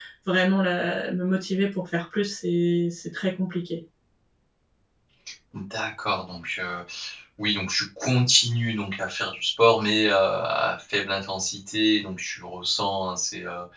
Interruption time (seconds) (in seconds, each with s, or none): none